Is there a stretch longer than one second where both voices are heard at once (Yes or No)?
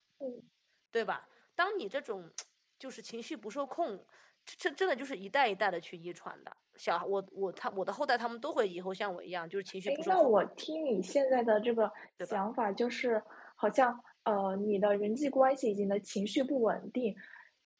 No